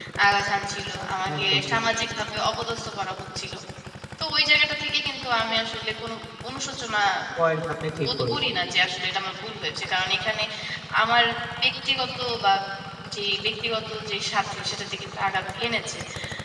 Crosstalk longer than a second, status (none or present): none